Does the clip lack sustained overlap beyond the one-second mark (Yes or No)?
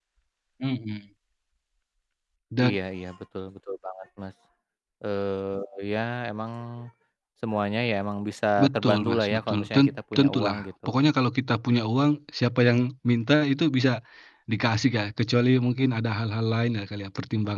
No